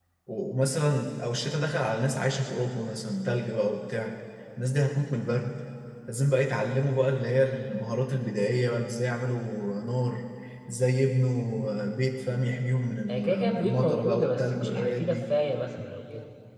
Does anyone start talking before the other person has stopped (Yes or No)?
Yes